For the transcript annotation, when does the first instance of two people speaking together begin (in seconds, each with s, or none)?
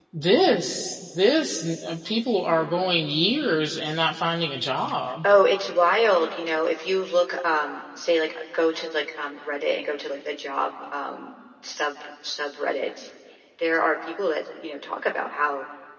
none